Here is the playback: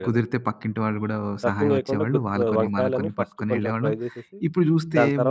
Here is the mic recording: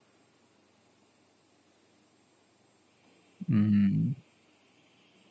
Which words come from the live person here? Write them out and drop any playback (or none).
హ్మ్.